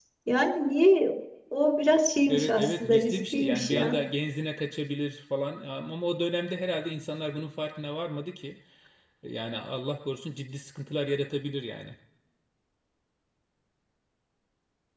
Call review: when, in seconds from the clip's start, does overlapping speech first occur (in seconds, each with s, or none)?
2.3 s